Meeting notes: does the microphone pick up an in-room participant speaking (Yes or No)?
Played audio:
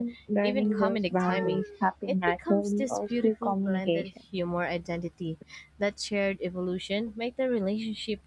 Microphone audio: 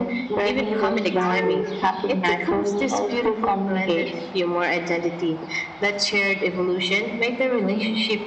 No